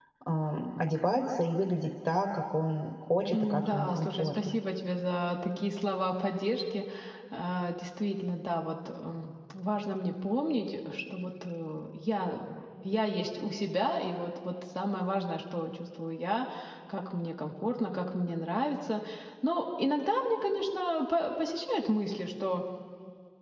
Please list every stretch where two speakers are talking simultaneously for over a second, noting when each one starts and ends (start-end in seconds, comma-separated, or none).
3.3-4.6